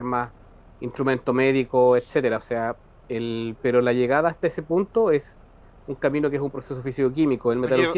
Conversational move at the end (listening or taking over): listening